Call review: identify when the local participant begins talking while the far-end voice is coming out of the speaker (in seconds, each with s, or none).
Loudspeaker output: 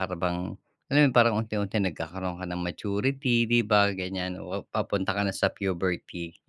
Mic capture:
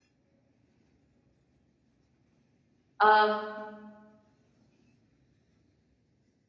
3.0 s